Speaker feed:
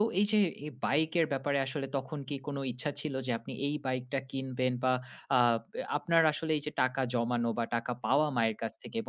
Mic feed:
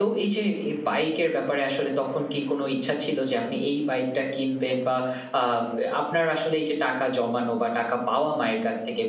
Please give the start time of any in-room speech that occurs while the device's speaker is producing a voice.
none

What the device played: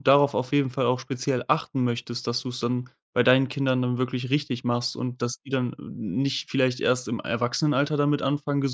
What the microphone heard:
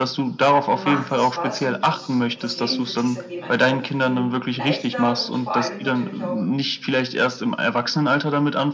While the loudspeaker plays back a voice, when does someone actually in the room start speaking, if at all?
1 s

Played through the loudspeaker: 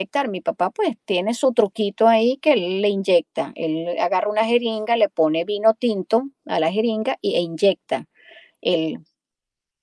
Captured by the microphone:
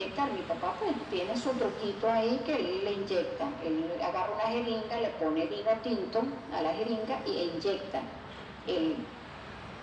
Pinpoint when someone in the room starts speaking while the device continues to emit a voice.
none

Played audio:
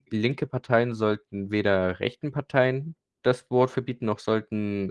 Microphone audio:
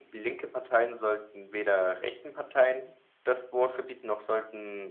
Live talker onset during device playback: none

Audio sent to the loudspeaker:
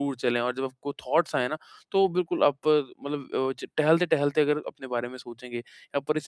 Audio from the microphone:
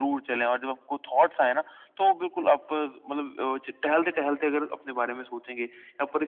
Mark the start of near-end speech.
none

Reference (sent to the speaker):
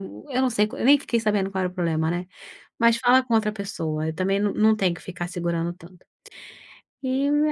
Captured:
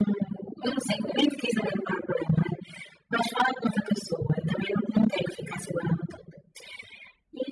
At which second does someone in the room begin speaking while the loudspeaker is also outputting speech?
none

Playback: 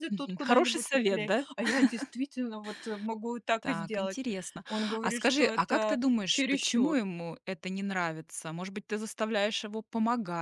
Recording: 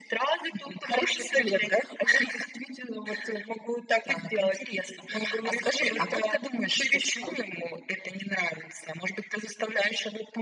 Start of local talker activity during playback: none

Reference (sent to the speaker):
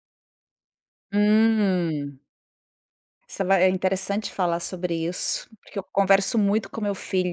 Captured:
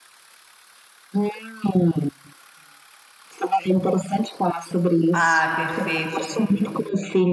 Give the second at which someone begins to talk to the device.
5 s

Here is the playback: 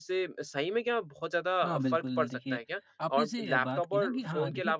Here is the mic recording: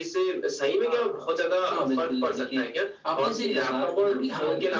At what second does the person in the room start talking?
1 s

